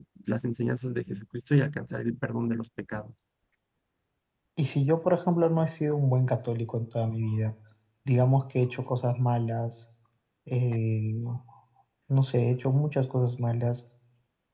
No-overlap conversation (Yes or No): Yes